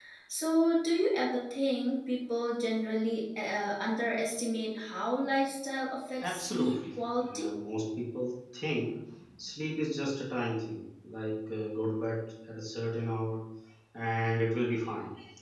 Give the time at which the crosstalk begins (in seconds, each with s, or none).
6.2 s